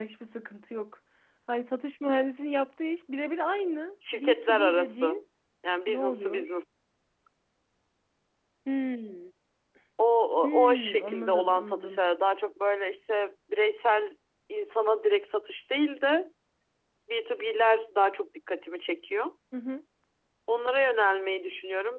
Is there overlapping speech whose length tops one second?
Yes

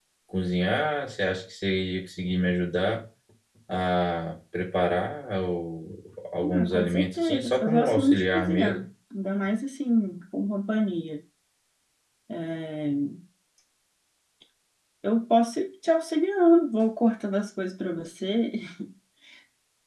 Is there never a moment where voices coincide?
No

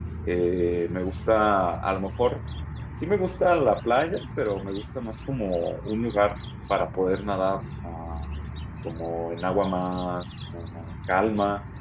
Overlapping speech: No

